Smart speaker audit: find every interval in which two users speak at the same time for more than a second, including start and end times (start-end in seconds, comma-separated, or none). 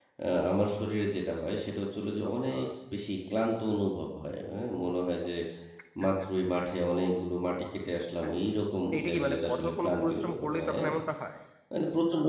9.0-10.9